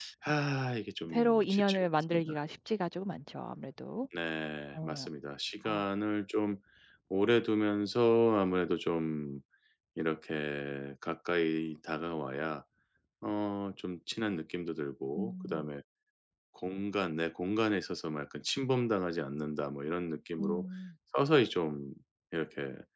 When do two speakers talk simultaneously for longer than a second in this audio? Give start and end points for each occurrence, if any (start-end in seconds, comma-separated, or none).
1.1-2.3